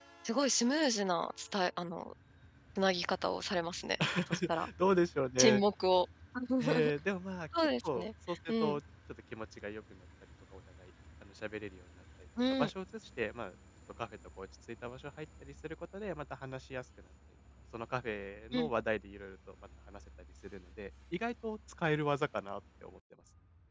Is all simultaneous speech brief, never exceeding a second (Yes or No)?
No